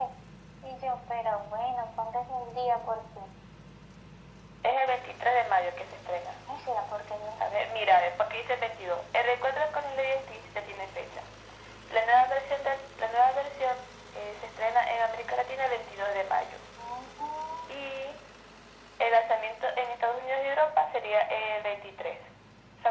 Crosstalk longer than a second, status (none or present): none